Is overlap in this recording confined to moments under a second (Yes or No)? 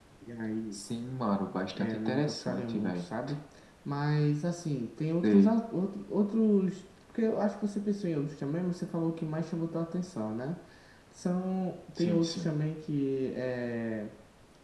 No